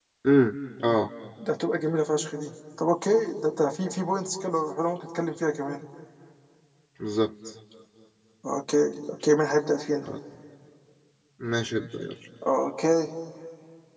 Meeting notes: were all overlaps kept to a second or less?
Yes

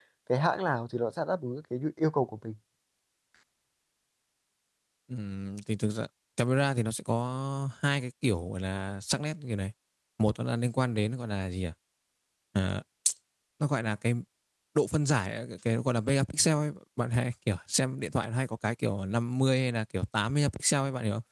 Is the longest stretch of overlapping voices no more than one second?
Yes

